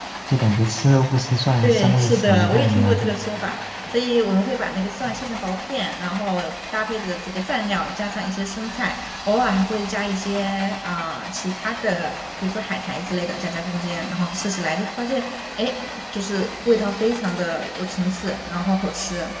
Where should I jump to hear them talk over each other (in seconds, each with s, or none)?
1.6 s